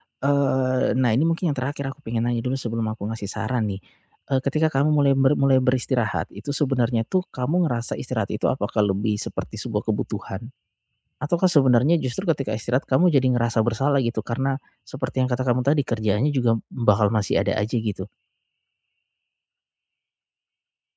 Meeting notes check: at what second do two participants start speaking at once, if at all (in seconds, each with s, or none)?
none